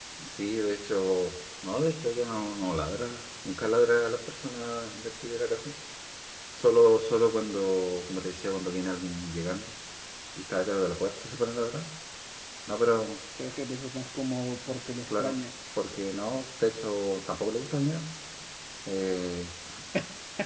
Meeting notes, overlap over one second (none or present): none